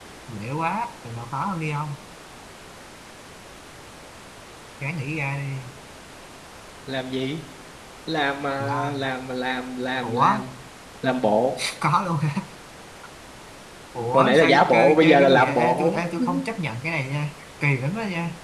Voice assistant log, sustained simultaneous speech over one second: present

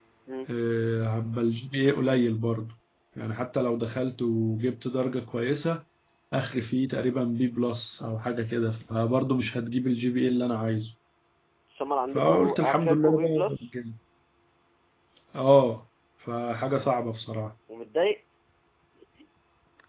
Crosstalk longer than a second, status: present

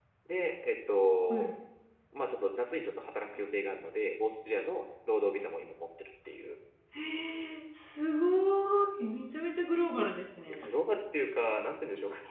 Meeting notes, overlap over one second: none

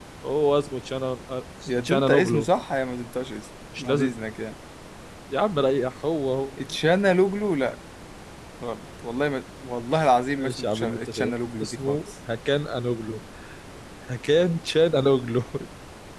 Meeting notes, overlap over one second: present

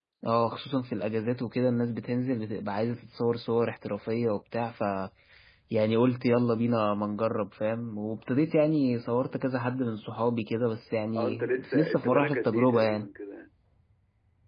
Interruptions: present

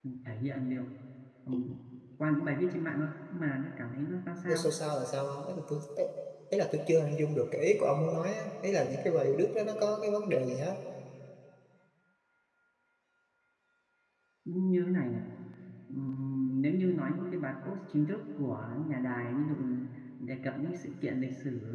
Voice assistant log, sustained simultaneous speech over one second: none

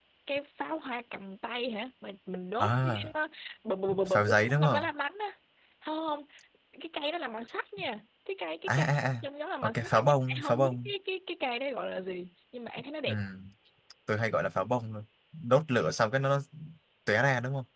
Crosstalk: present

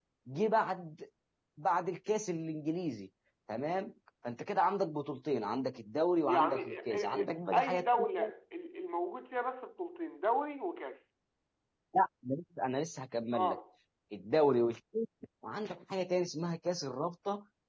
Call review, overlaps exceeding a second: present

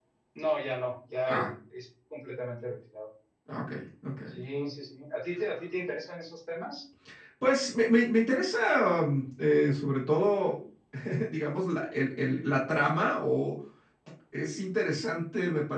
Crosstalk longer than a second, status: none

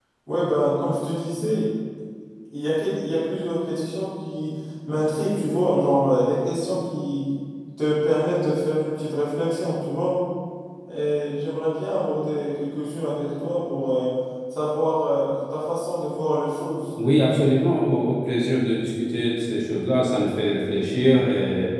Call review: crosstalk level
none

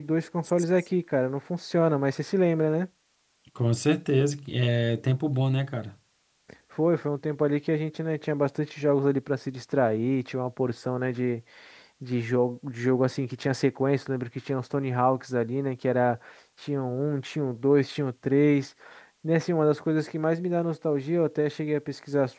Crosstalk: none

